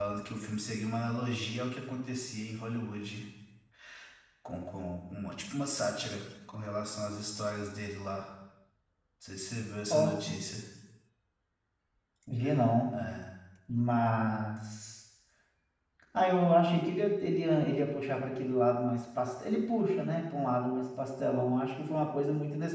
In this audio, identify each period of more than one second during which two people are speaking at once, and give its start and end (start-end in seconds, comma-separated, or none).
none